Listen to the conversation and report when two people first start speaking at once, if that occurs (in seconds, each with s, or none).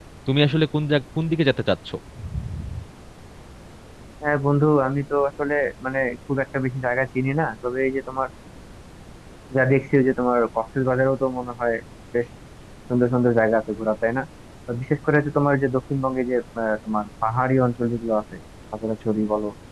none